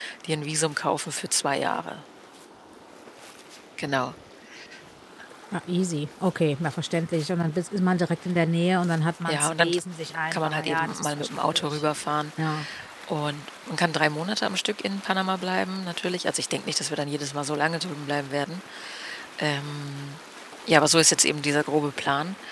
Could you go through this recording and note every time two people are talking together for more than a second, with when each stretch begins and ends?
10.3-11.8

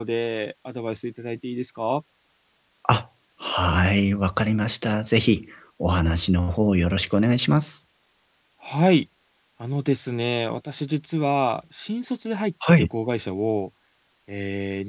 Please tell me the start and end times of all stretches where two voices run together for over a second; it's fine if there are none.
none

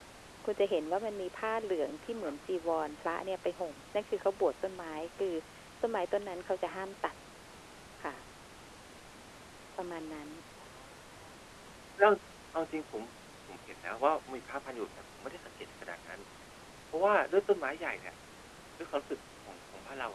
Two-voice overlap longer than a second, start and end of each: none

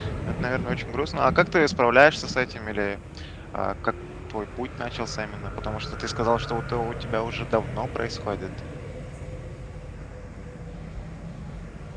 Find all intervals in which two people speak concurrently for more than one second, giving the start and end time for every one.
none

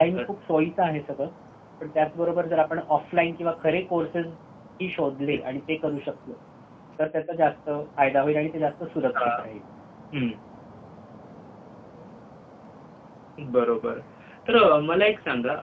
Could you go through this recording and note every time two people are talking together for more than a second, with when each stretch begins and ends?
none

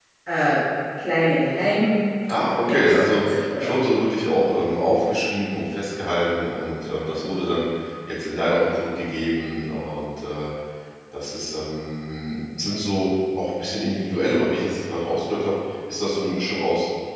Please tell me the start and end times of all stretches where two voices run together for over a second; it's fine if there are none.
2.3-3.8

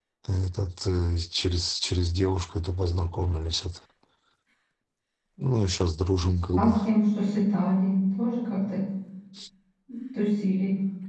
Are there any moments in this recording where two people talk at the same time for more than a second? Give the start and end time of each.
none

